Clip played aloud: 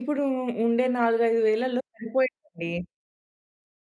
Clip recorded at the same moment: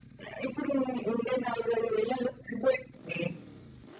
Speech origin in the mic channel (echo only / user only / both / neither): echo only